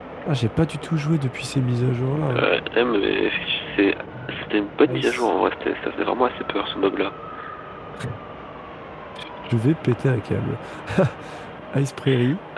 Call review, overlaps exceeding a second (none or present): none